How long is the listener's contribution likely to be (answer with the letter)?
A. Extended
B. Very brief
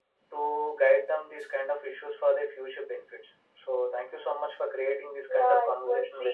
A